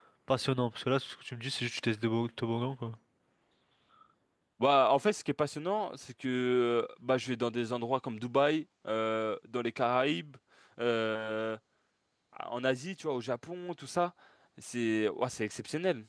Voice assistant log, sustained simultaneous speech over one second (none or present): none